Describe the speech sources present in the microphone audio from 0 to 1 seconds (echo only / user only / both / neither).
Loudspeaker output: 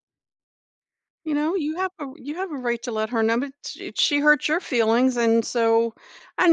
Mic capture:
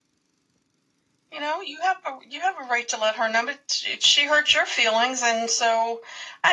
neither